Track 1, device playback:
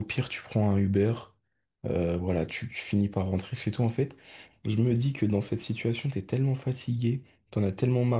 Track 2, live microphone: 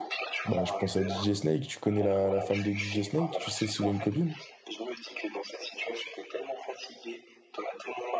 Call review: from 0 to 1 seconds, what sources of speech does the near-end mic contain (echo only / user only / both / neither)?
both